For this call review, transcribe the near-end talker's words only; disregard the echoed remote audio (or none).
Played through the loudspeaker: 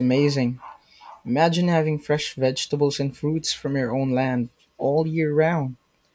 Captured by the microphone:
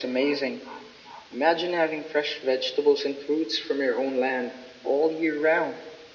none